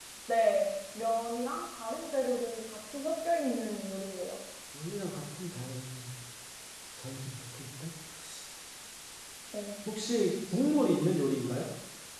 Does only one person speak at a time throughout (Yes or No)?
Yes